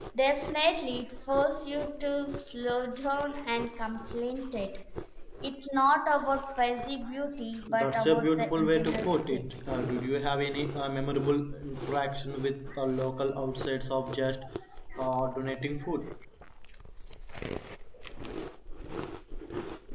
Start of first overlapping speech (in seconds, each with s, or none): 7.7 s